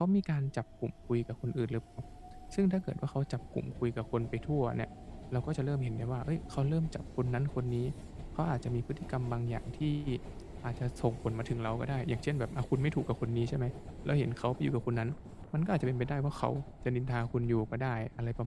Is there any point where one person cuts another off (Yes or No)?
No